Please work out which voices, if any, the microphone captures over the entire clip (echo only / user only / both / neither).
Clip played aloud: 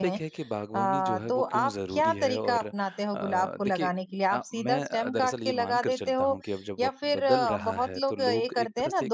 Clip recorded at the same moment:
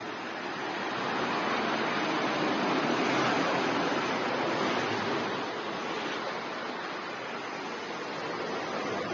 neither